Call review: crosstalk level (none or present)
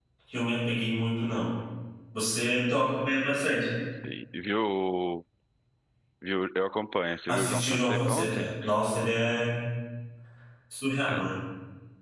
present